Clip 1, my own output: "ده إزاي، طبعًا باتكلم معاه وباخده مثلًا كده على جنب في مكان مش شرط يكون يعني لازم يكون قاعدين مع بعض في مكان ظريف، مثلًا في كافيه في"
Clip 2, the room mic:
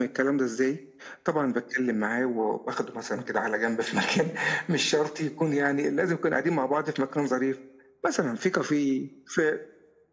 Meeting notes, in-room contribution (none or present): none